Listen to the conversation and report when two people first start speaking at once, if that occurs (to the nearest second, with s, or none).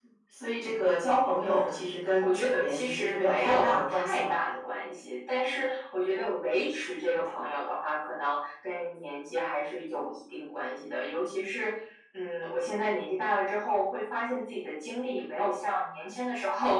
1 s